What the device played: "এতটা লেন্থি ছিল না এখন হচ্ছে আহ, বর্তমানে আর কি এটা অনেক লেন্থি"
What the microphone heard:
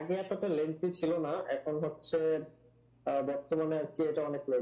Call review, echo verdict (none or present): present